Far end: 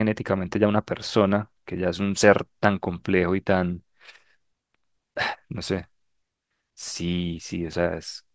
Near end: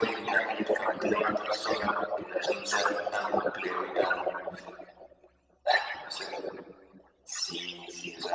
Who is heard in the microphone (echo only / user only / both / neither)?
echo only